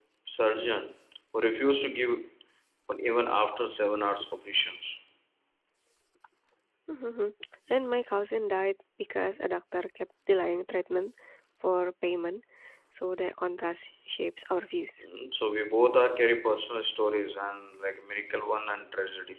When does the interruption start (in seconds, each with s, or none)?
none